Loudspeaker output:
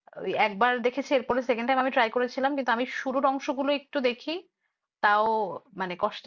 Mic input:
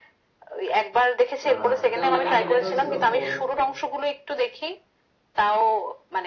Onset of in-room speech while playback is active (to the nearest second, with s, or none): 1 s